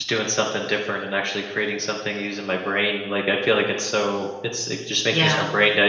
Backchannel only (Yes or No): Yes